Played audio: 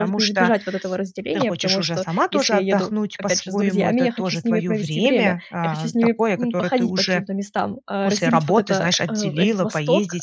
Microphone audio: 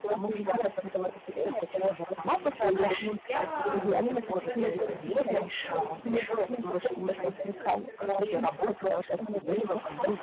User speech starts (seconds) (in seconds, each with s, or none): 2.1 s